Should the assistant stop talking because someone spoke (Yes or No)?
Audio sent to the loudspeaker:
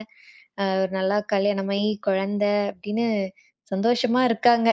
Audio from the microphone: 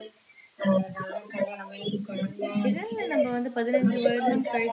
Yes